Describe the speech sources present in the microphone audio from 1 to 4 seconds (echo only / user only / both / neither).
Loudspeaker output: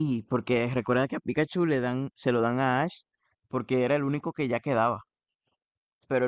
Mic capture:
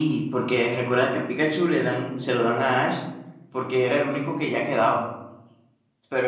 echo only